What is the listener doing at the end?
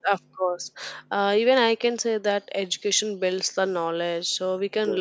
listening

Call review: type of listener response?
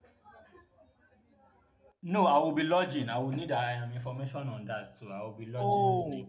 taking over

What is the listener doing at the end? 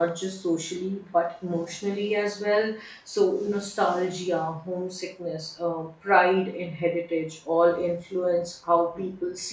taking over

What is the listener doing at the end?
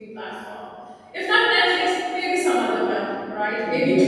taking over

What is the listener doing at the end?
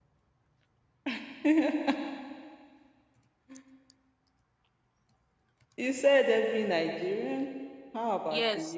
taking over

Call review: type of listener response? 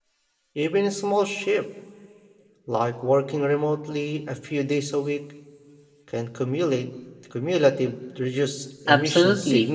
taking over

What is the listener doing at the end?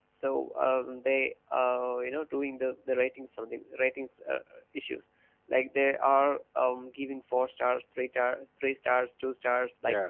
listening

